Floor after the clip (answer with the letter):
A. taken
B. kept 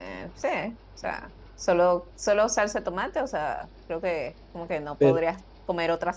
B